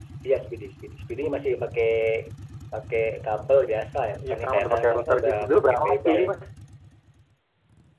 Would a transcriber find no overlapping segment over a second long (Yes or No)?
No